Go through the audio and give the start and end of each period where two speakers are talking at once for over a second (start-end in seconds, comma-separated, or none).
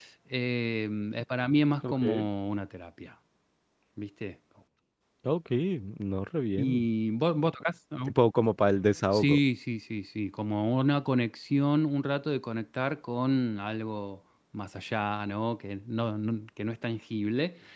none